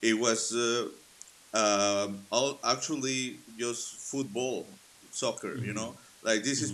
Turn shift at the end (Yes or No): No